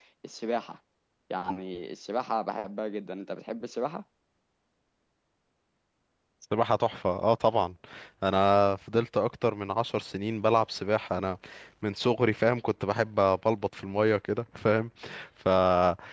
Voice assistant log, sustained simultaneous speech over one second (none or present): none